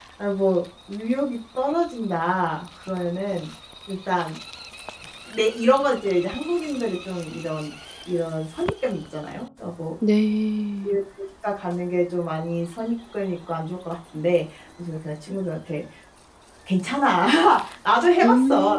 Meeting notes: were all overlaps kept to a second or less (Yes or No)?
Yes